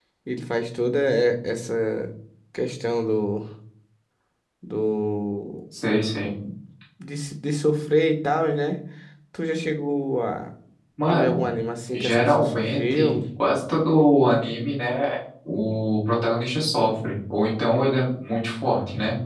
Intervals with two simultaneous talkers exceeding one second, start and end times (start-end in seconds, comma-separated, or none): 11.9-13.2